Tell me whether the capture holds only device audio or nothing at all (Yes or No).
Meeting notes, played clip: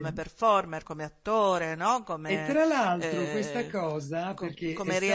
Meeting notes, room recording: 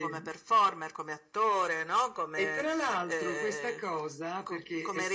Yes